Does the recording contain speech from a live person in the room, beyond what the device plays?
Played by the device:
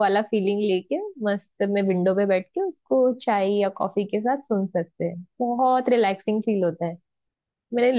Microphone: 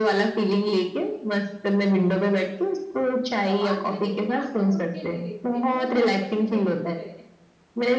Yes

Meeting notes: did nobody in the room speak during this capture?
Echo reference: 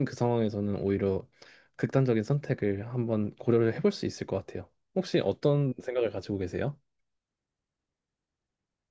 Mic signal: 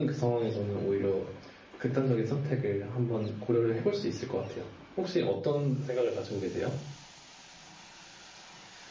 Yes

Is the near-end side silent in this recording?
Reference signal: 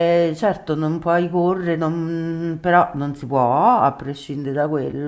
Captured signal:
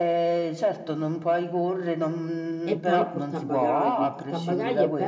No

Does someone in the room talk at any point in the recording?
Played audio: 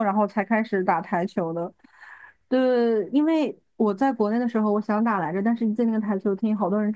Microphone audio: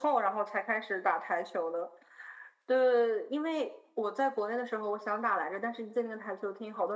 No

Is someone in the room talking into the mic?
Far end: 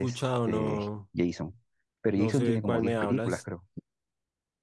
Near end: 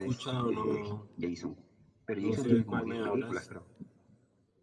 No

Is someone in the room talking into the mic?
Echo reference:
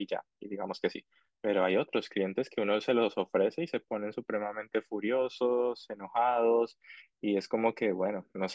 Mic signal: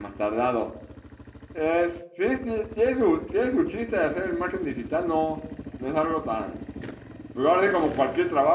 Yes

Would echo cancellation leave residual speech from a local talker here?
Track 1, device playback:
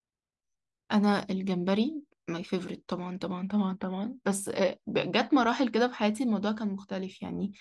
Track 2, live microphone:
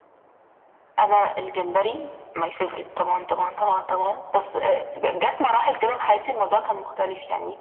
No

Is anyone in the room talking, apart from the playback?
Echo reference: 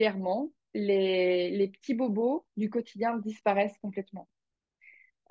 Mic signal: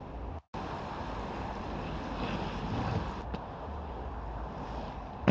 No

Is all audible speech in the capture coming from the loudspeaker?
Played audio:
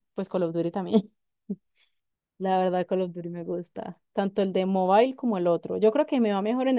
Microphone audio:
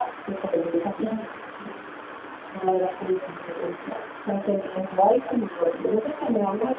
Yes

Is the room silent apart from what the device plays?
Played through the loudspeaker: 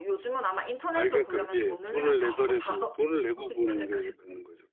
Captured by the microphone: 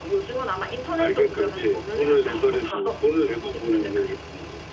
Yes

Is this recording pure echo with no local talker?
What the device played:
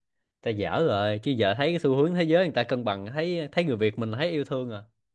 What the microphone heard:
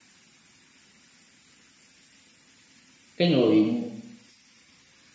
No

